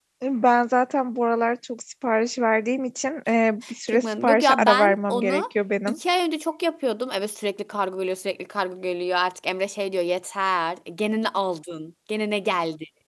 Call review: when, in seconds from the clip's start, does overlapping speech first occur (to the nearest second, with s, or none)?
4 s